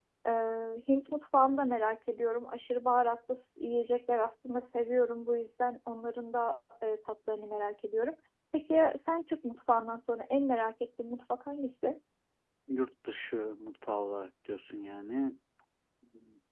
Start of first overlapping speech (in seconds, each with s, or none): none